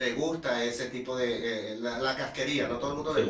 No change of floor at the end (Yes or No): Yes